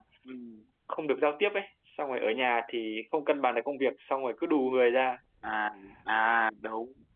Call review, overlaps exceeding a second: none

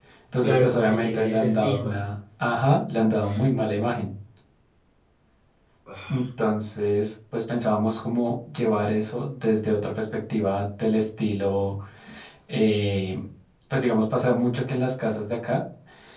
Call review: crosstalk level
present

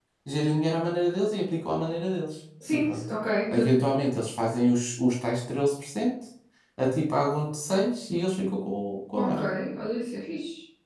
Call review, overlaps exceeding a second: none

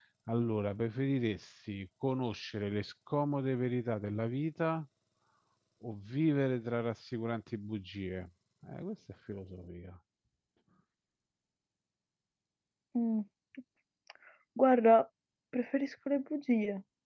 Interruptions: none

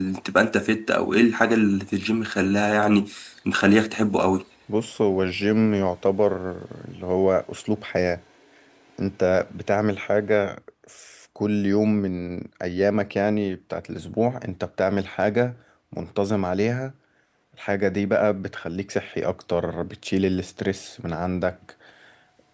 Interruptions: none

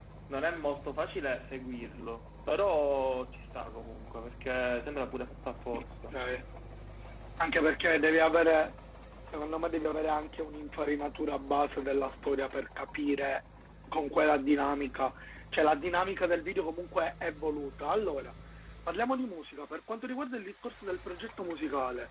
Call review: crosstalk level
none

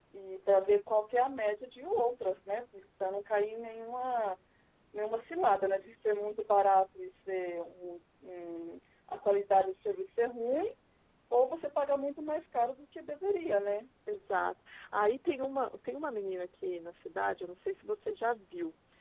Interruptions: none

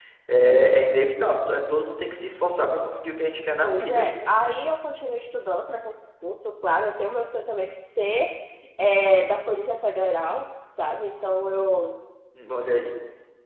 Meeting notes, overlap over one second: none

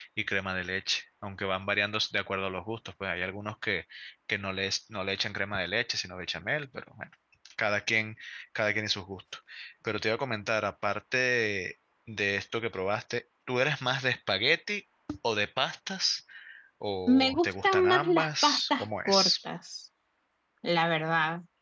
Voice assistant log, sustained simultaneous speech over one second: present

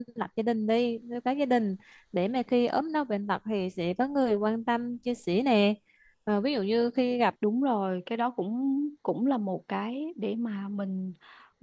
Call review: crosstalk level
none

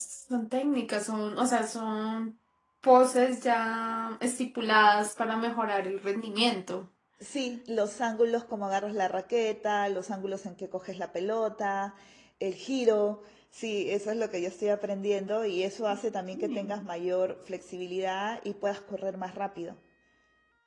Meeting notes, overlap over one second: none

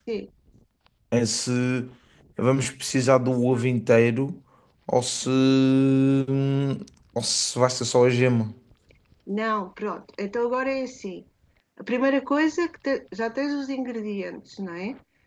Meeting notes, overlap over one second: none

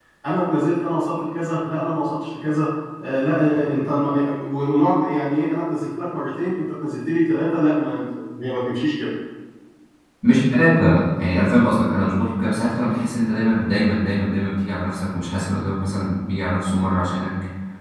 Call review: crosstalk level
none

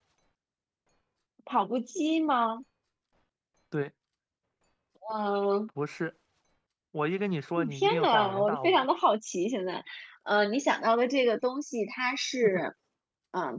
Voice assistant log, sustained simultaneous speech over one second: present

